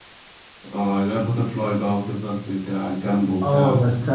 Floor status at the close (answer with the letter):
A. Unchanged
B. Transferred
B